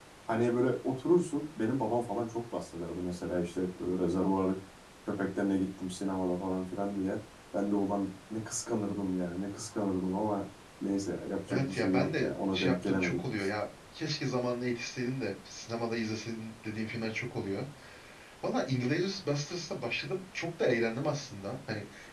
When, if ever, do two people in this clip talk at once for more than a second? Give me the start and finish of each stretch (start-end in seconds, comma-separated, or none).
11.5-13.5